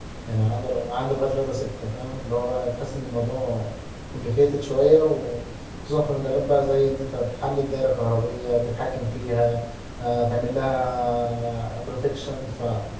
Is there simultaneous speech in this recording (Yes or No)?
No